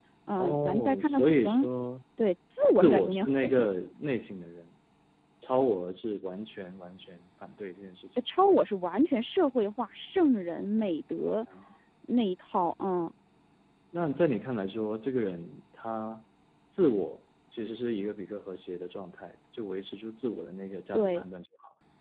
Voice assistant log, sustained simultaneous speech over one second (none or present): present